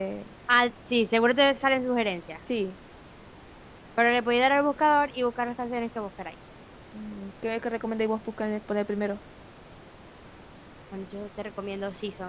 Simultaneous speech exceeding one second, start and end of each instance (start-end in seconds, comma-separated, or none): none